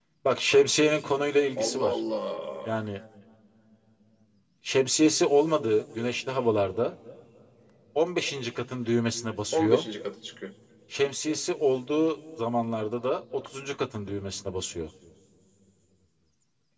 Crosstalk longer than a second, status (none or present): none